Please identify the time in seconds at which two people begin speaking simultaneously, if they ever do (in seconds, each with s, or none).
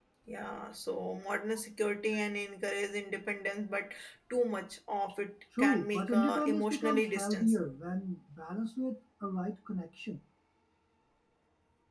5.5 s